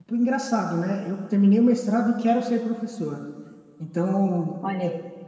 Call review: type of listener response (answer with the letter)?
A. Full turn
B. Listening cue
B